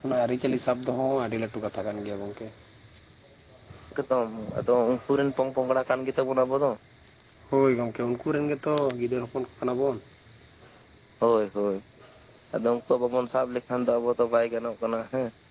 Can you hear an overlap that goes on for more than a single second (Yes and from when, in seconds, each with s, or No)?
No